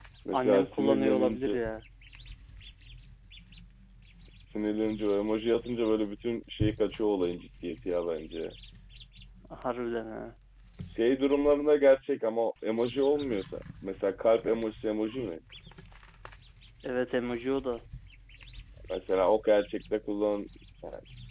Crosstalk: present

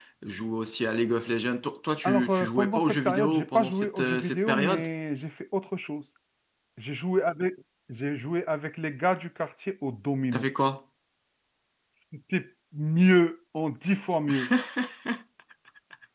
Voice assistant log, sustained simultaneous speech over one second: present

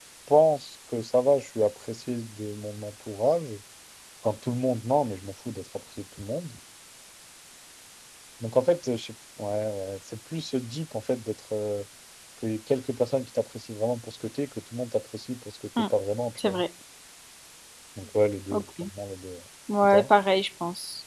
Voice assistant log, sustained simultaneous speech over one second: none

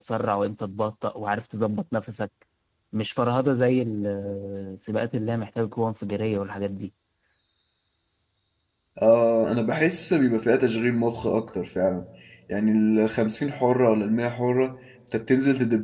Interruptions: none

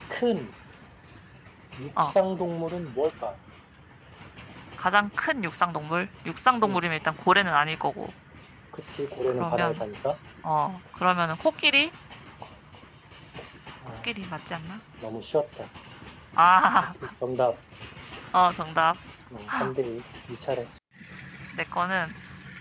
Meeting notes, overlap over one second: none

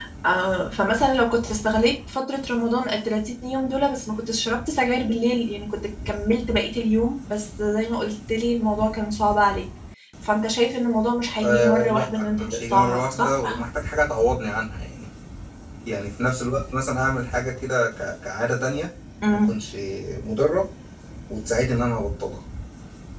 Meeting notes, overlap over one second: present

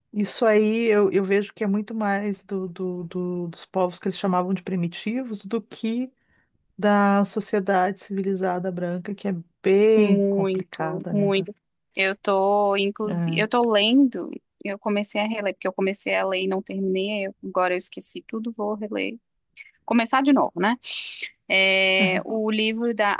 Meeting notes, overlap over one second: present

